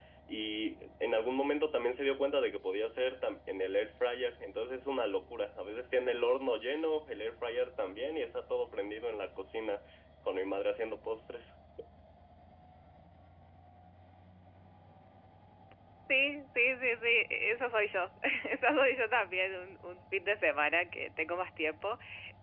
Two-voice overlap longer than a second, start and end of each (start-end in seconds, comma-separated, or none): none